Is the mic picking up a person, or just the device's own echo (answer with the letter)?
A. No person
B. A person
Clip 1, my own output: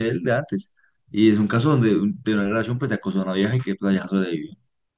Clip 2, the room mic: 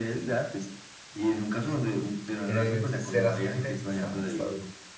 B